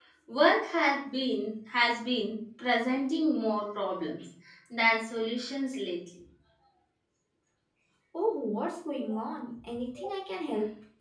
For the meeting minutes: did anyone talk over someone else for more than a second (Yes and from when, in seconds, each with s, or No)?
No